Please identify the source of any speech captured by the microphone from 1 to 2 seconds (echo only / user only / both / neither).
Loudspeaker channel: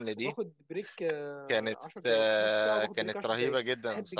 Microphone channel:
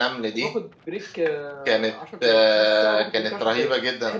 echo only